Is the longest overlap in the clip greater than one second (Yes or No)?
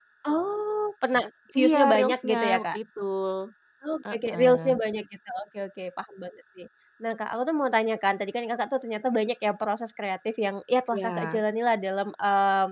Yes